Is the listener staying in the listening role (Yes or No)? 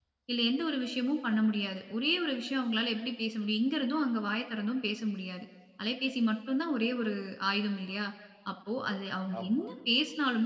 Yes